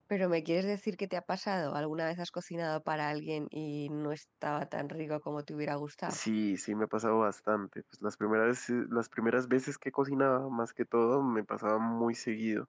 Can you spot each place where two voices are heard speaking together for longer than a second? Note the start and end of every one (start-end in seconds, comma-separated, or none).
none